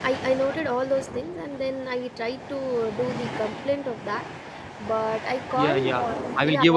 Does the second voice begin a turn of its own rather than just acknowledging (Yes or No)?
Yes